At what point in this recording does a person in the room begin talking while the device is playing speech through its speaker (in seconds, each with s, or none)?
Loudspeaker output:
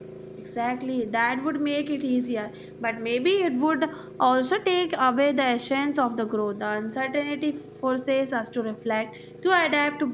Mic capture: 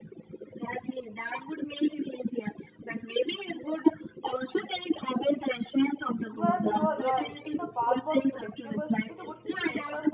6.3 s